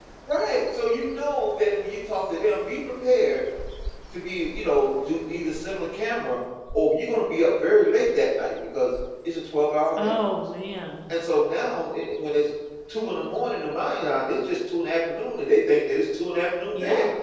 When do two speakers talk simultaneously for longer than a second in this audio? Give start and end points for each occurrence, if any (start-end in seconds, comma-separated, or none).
none